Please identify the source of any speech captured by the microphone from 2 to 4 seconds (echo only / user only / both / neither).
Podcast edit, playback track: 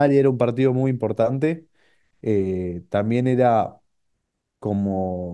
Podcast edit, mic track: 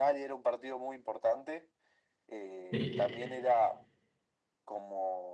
both